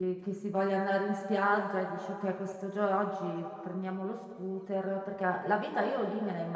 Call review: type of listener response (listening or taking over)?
listening